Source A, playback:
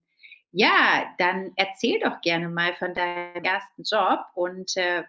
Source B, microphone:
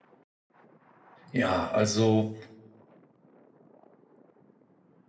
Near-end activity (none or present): present